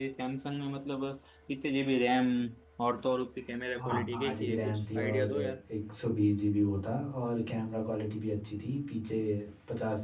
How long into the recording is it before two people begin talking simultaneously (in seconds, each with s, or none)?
3.8 s